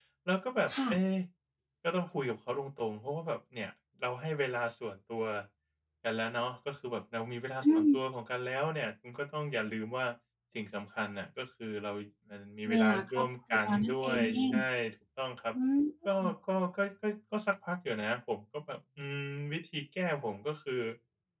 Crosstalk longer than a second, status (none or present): present